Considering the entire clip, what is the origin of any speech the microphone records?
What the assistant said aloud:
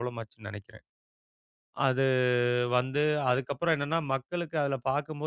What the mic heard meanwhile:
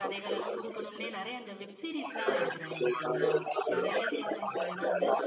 both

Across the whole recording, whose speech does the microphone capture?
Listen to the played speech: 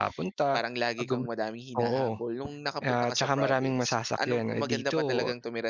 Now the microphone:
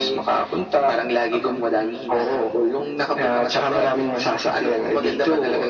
echo only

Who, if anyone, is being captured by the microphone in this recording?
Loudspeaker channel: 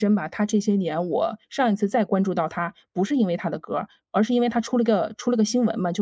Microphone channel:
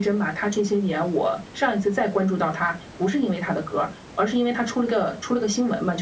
echo only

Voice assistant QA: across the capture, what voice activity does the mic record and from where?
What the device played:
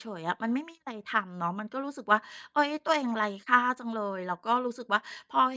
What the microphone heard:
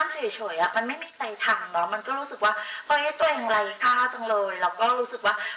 echo only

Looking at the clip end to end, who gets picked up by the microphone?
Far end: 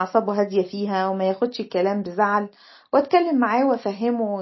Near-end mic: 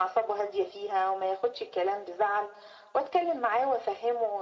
echo only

